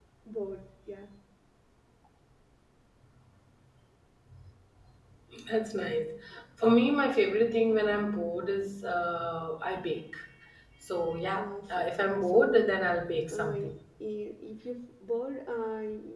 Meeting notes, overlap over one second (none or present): present